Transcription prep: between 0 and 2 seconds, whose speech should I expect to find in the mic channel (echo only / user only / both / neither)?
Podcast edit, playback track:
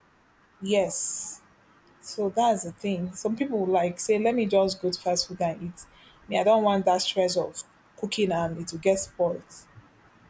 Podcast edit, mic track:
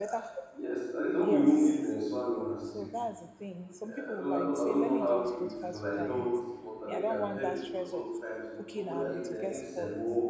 both